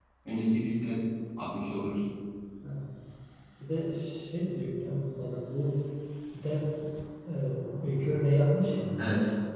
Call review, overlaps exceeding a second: none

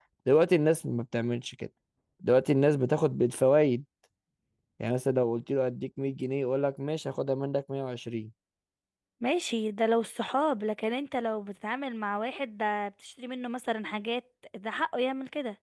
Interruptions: none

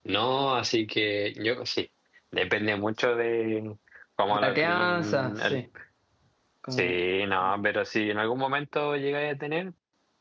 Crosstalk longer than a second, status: present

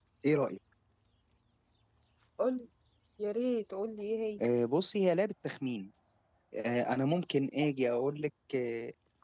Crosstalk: none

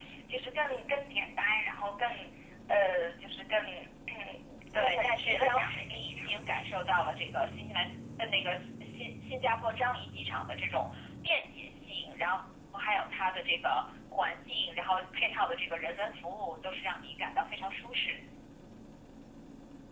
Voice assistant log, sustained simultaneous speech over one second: present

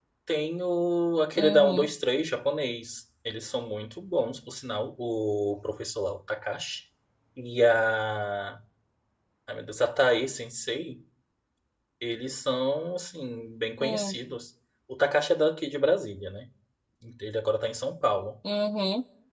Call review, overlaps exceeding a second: none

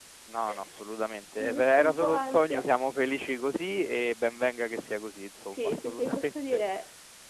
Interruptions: present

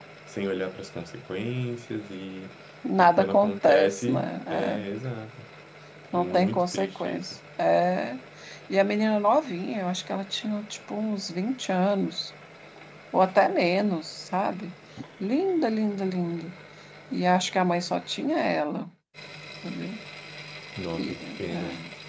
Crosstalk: present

